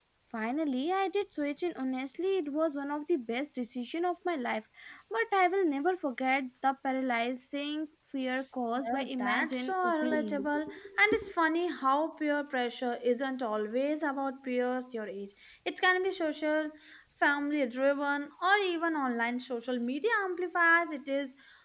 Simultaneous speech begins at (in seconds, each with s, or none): 8.8 s